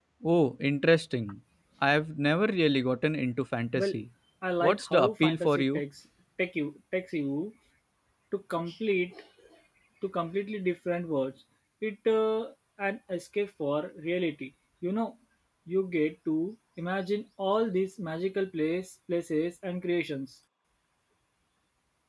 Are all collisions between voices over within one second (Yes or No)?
No